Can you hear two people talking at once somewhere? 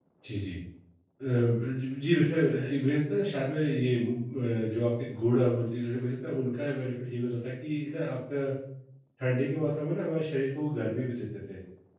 No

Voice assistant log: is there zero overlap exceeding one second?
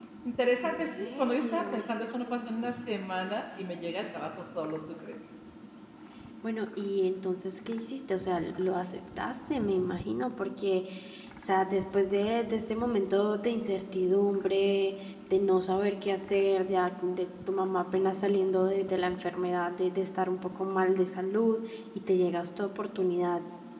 No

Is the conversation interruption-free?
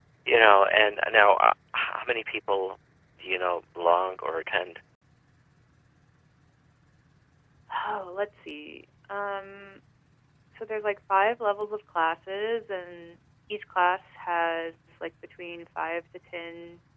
Yes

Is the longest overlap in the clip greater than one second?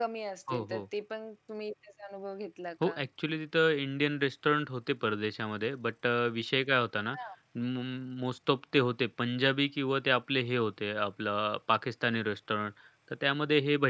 No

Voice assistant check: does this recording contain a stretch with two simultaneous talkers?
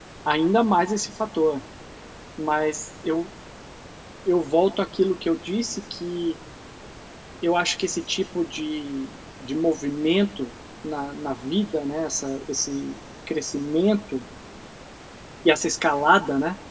No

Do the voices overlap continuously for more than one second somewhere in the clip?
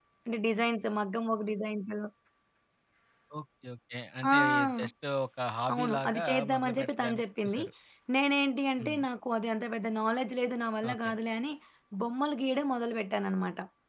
Yes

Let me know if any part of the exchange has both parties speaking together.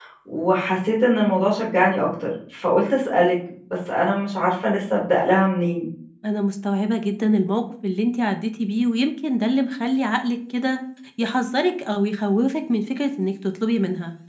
No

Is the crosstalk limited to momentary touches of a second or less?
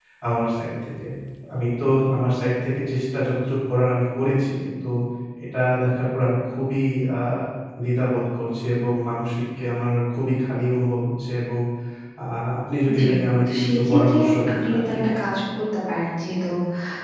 No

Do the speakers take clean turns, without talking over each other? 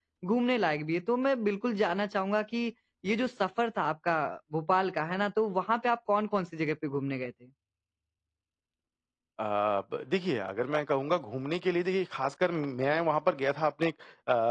Yes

